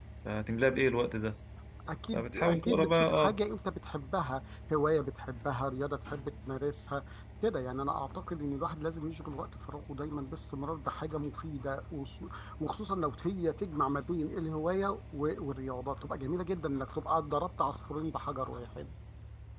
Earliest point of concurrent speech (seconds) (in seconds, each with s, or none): 2.1 s